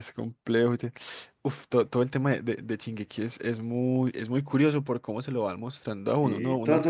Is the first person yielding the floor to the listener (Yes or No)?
Yes